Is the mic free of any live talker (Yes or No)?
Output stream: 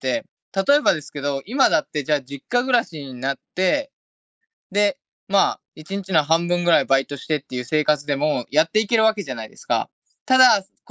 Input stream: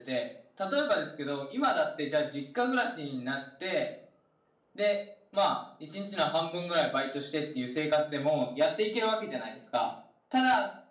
Yes